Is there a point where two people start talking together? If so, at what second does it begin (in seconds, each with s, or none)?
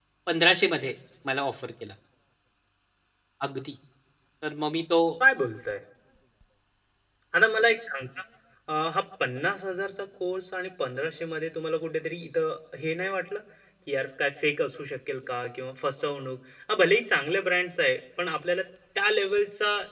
none